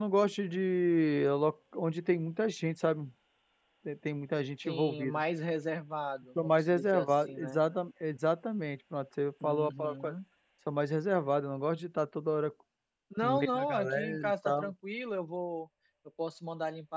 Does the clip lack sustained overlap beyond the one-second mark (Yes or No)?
No